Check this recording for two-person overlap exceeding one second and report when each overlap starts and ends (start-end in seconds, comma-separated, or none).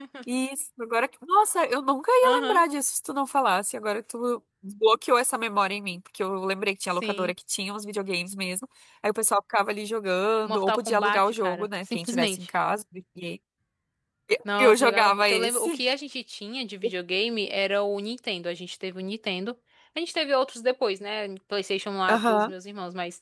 10.4-12.5, 14.6-15.8